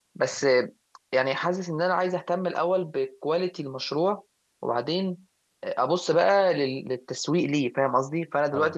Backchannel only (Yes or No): Yes